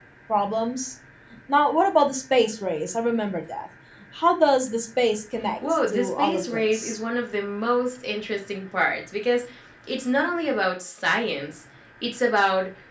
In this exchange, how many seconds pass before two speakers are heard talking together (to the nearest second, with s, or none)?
6 s